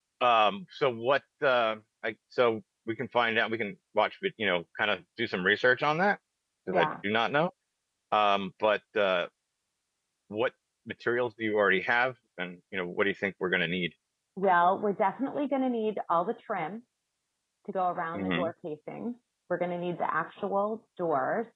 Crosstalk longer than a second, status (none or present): none